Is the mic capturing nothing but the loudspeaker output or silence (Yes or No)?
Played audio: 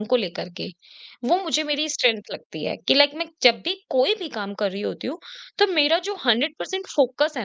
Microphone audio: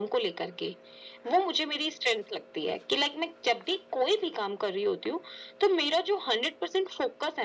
Yes